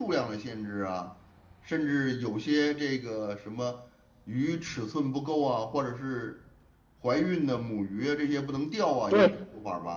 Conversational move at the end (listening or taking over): taking over